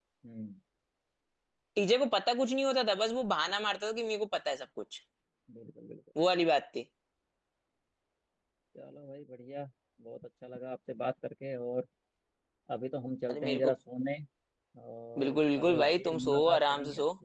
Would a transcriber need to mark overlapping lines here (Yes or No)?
Yes